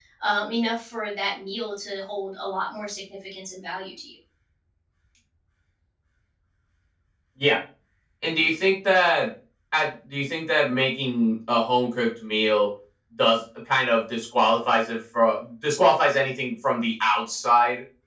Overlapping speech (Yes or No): No